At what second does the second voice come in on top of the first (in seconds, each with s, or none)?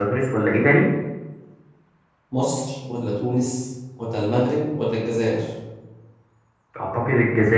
none